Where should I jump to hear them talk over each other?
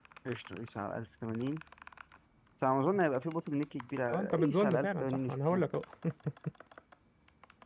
4.1 s

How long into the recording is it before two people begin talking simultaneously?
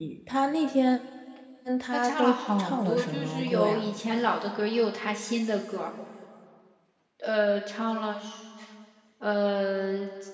1.9 s

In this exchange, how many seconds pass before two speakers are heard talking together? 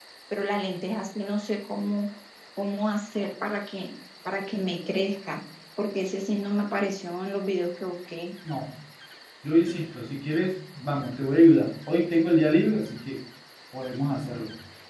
none

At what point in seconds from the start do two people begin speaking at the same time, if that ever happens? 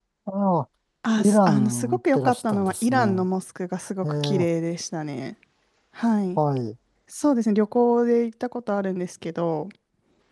1.2 s

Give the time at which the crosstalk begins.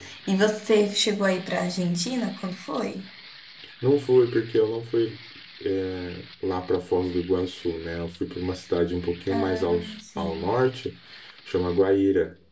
9.3 s

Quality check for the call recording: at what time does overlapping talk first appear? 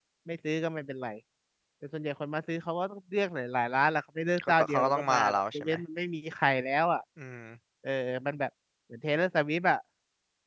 4.4 s

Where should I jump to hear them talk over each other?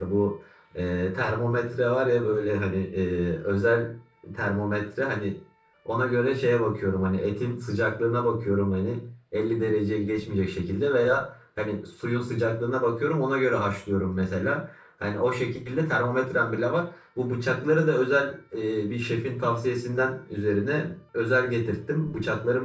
none

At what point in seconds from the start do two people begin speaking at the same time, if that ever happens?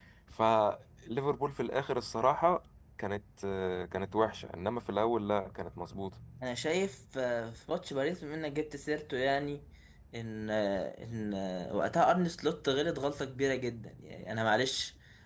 none

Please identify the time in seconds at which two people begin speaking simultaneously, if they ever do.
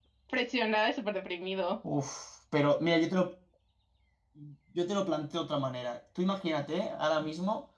none

